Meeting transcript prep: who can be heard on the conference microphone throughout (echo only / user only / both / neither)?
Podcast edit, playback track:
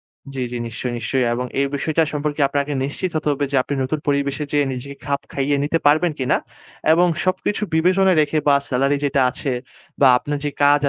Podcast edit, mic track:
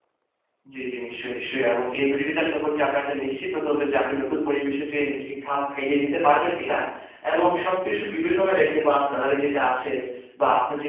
echo only